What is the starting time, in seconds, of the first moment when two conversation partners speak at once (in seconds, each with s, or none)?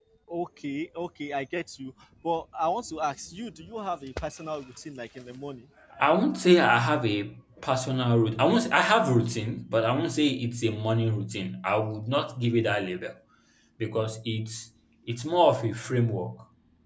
none